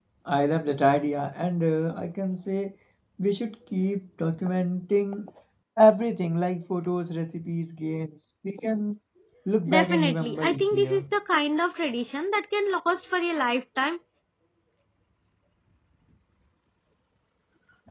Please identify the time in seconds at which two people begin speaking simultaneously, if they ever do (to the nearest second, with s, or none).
10 s